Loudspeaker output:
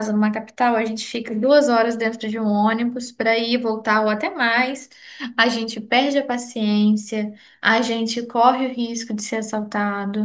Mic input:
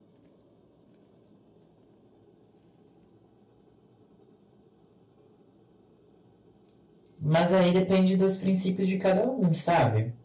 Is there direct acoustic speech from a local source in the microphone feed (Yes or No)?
Yes